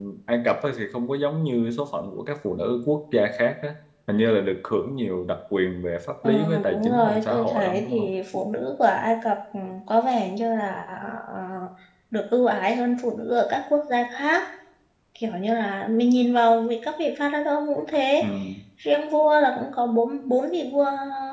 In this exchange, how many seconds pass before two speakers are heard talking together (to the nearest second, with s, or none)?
6 s